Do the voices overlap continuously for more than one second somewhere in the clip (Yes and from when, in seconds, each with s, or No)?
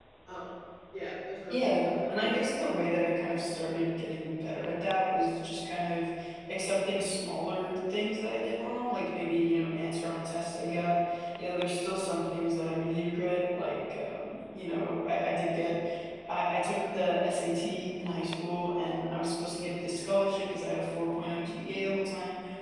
Yes, from 1.5 s